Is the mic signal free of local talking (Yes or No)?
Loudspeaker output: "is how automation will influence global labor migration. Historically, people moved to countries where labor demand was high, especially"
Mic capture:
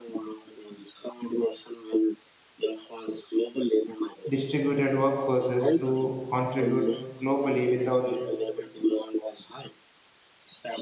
No